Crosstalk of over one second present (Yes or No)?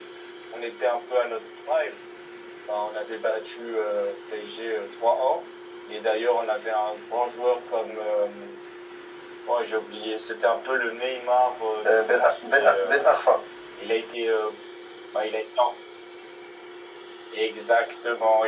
Yes